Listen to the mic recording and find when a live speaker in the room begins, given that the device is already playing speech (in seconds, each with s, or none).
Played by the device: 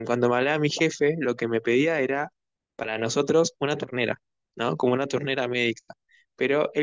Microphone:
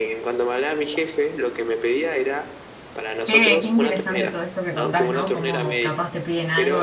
3.2 s